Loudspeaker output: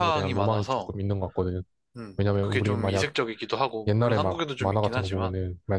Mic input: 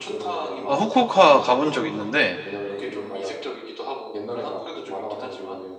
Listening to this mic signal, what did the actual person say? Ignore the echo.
아, 후쿠오카 가본 적 있는데

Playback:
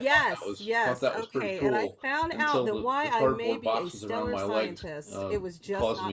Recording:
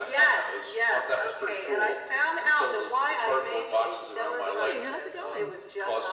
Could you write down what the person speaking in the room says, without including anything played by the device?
hey, how's it going?

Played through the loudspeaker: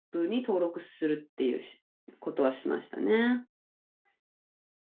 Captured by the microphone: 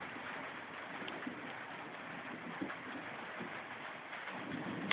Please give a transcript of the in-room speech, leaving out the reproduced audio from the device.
none

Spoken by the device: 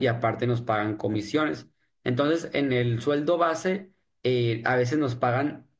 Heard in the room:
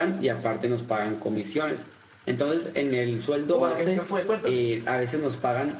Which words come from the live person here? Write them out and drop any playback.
¿O qué, qué fue? Cuéntame.

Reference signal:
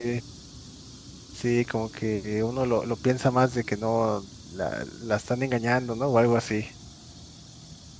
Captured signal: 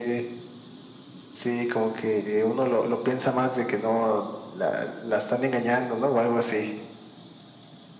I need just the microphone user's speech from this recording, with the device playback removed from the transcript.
none

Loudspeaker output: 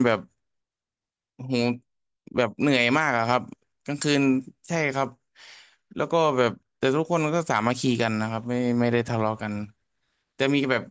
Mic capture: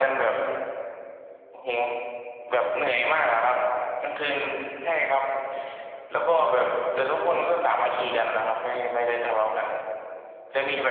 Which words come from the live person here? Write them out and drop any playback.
none

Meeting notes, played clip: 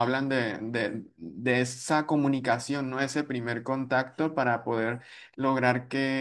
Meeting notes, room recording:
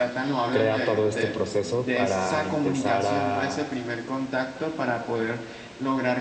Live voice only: crea todo este proceso para empezar a

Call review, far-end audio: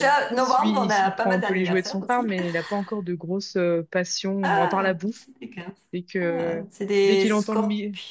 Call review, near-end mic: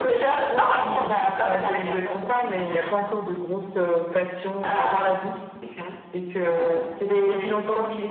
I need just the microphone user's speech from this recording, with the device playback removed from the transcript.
Ah,

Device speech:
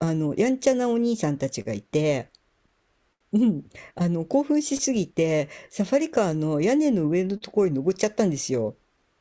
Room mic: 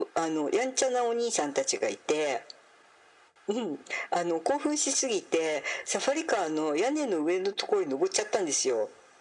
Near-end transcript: none

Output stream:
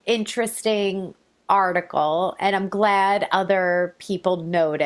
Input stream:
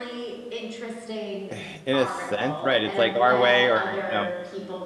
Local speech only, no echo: in a sense, right? It's like our way, or you know,

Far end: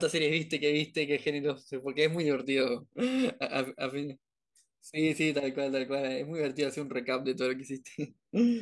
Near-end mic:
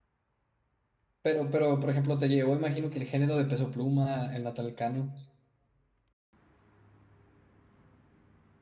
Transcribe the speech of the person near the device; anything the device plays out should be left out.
Pero, pero, por ejemplo, te llevó, imagino que el género de Peso Pluma, el Natalcano.

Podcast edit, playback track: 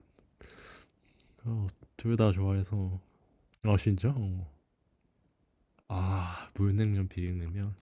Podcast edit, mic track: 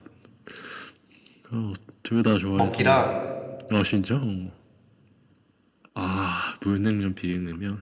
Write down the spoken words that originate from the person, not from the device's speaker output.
먹기랑

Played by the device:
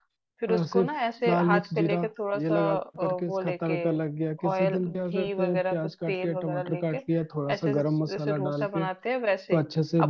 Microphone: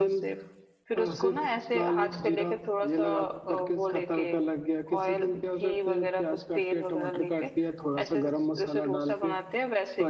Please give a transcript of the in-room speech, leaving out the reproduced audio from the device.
none

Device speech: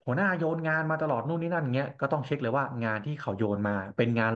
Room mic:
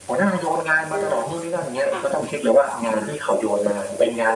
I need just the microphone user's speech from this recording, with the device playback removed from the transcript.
อืมค่ะ

